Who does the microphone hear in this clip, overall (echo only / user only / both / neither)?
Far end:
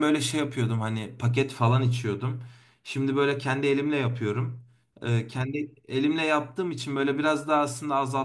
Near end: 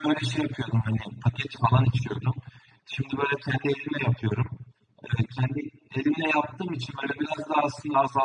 echo only